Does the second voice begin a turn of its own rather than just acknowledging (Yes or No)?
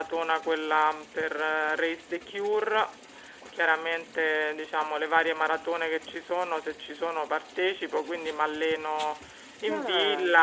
No